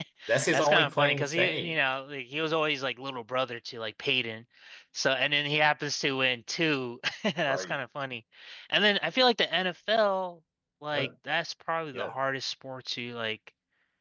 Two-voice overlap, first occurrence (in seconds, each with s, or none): 0.5 s